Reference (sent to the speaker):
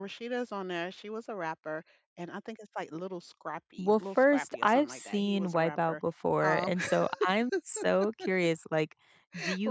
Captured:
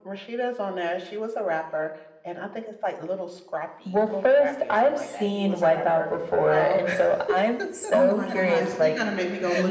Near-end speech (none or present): present